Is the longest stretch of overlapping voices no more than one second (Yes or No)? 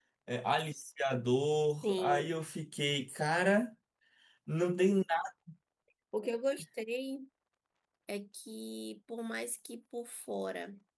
Yes